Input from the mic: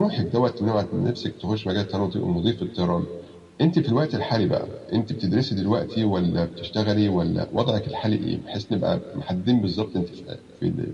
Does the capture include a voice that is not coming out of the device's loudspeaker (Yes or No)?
No